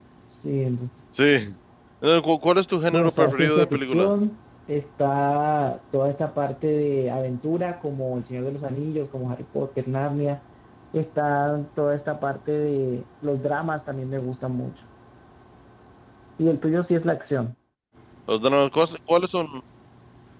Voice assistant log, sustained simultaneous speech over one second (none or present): present